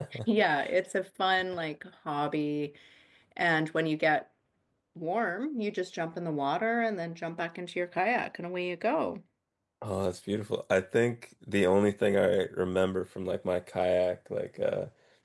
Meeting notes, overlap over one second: none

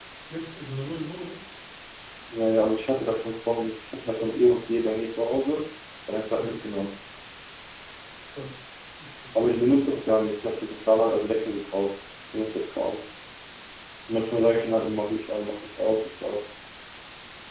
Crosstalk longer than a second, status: none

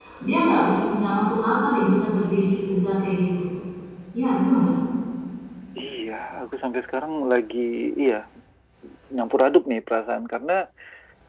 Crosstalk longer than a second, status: none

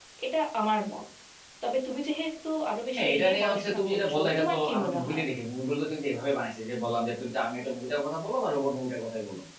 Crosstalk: present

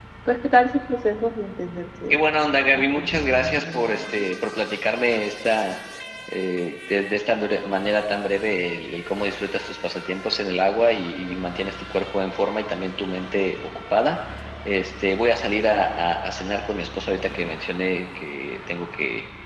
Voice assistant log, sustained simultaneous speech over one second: present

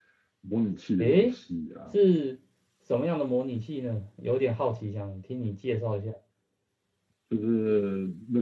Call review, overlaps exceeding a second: none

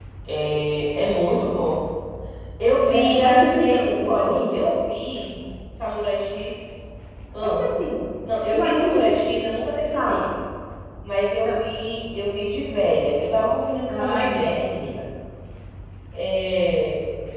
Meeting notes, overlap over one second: present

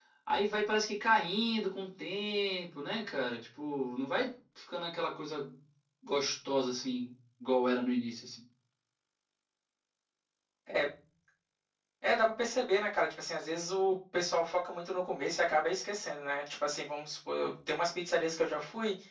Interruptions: none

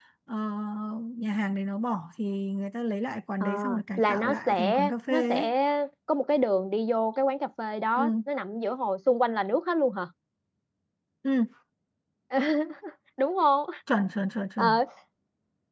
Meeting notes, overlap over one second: present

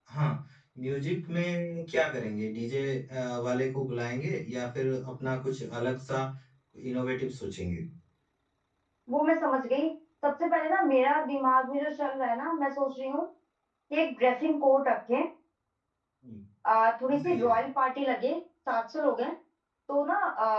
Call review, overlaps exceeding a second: none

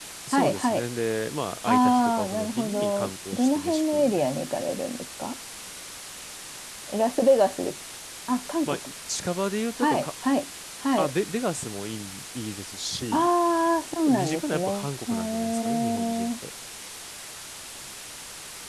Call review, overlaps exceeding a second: present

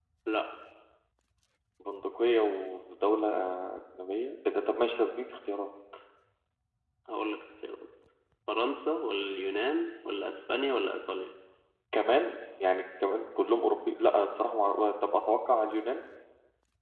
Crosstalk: none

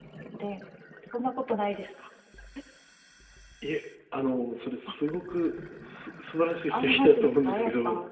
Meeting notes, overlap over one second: present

